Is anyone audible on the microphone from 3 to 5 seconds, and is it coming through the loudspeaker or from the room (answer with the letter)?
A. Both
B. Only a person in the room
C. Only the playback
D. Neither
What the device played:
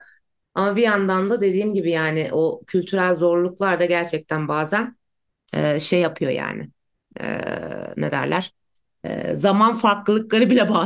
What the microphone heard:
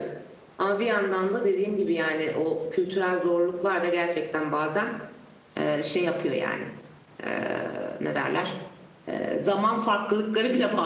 C